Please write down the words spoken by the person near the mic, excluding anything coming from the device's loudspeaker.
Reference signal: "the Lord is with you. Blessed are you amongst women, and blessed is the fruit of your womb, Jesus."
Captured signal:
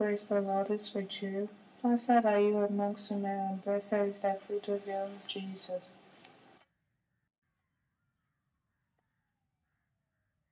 none

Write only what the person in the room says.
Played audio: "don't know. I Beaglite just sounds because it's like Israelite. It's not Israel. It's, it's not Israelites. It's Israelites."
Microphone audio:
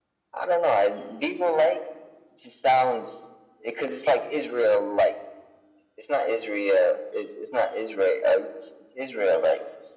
none

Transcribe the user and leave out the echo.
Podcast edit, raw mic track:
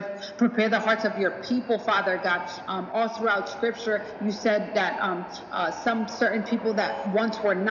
none

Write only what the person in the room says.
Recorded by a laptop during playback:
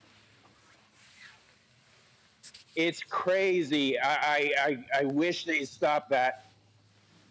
It's crazy. I, I I wish they stopped that,

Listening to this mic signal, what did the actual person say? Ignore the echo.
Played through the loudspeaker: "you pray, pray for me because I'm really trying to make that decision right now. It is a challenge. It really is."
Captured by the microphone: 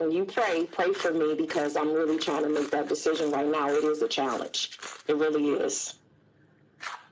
none

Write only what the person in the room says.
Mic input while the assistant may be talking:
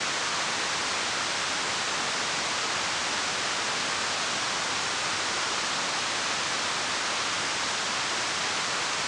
none

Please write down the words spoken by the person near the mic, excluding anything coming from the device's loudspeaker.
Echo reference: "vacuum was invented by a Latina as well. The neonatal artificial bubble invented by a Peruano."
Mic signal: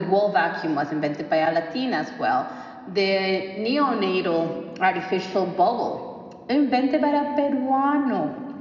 none

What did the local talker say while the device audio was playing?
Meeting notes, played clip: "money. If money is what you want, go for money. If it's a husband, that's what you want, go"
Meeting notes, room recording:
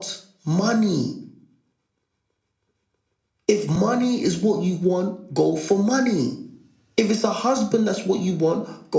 none

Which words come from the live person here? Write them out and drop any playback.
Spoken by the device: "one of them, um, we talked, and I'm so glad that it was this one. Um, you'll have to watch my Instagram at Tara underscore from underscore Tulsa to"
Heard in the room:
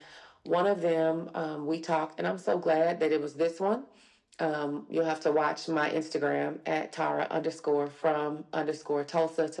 none

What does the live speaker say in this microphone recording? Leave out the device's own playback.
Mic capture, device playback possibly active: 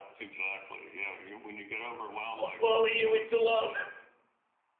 I'll bully you into love.

